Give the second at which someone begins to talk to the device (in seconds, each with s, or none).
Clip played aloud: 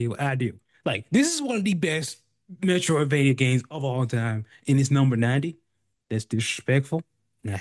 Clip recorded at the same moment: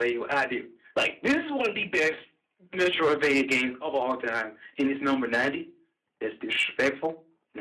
none